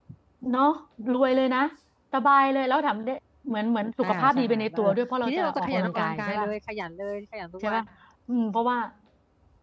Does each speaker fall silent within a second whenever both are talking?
No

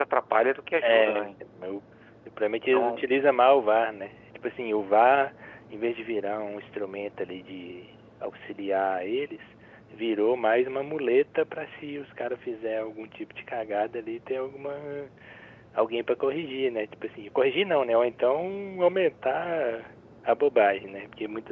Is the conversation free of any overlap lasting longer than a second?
Yes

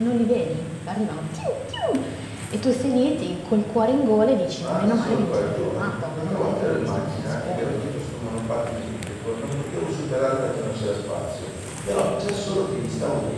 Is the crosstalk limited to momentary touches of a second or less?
No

